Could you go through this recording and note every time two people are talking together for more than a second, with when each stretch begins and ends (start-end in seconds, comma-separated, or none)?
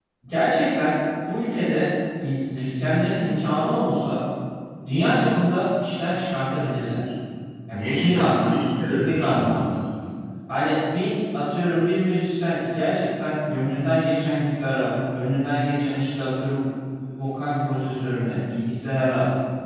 7.7-9.6